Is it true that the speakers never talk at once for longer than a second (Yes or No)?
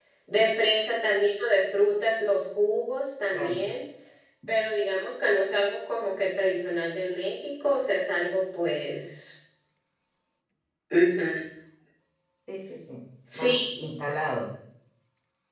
Yes